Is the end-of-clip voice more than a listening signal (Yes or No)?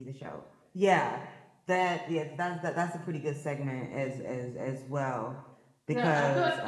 Yes